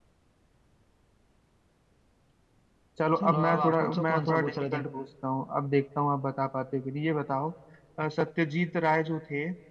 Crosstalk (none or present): present